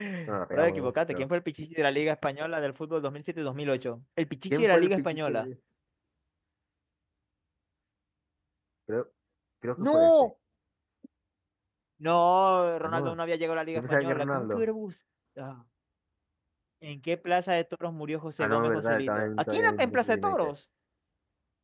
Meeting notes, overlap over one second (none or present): present